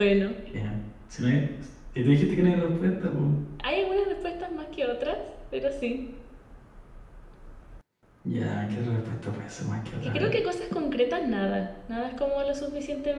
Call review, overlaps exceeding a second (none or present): none